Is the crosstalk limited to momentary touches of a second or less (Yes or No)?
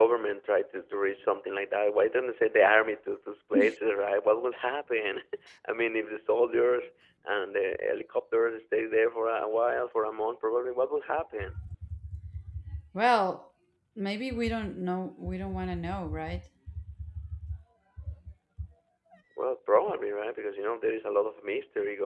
Yes